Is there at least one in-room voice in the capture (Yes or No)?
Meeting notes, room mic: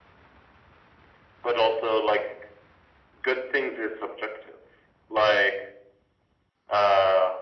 No